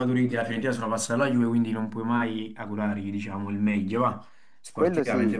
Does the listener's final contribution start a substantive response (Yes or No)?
Yes